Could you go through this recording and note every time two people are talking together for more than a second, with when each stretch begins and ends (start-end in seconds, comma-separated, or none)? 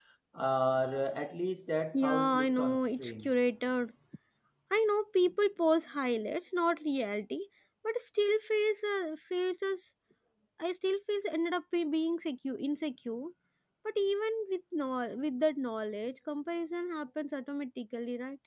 1.9-3.3